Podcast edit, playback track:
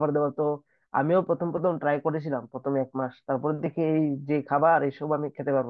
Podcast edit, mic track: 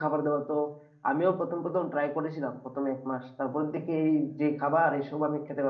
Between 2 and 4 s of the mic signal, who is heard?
echo only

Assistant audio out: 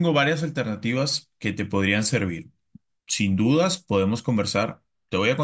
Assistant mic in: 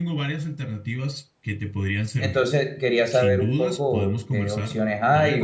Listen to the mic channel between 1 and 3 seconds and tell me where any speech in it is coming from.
both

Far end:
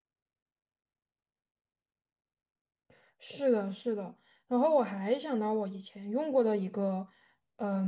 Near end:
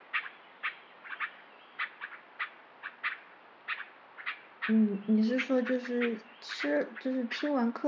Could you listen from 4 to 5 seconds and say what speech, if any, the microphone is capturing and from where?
user only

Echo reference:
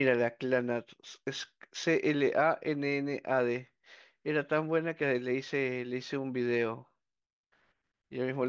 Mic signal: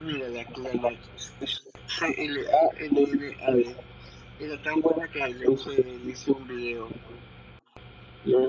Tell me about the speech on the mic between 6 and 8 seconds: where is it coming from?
echo only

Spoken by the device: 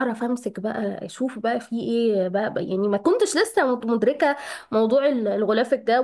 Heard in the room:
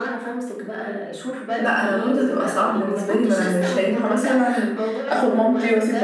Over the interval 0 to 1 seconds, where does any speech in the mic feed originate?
echo only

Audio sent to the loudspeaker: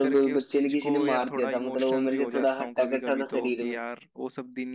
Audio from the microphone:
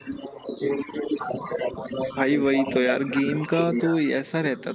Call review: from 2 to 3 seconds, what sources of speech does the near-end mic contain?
both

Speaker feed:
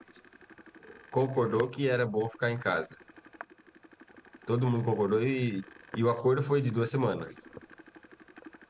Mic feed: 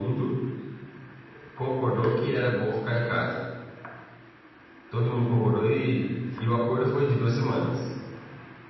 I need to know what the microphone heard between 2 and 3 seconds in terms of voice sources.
echo only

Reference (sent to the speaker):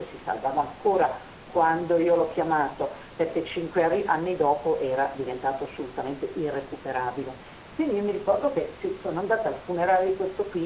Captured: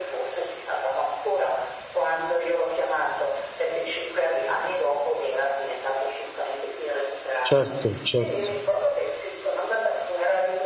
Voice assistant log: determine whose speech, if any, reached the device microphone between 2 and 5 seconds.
echo only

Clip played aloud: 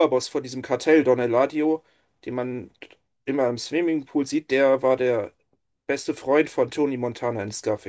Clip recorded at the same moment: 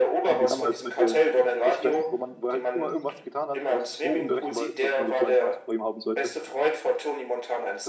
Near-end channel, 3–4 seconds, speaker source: both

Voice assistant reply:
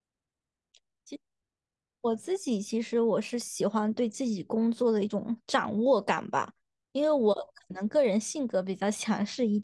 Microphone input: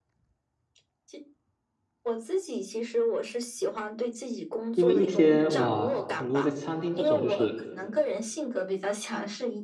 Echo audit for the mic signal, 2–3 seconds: echo only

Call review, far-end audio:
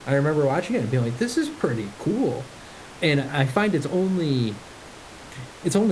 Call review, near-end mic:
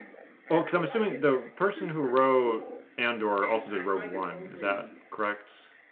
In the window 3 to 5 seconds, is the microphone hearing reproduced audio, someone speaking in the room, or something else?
both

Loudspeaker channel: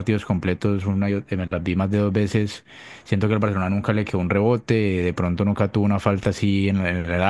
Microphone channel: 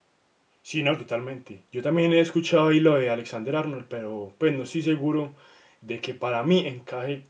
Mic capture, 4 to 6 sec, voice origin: user only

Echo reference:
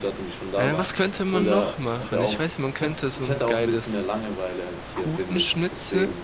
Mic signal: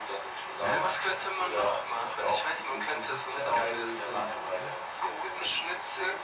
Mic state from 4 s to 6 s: both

